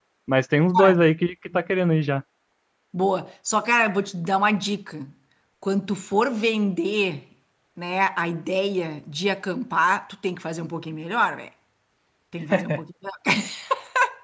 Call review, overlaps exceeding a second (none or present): none